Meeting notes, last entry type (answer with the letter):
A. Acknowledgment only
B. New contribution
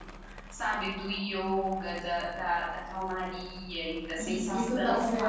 B